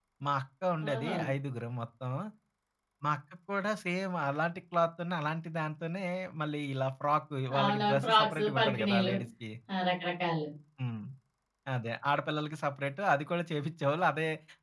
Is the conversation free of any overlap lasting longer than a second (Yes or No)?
No